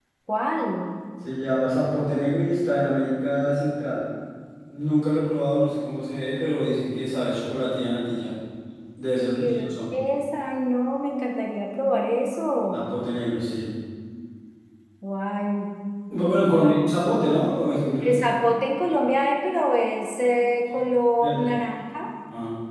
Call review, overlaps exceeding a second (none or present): none